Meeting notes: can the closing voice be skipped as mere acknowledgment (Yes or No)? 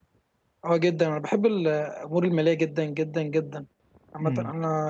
Yes